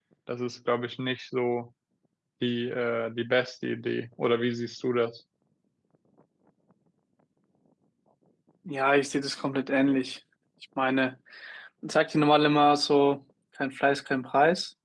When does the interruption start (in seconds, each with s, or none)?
none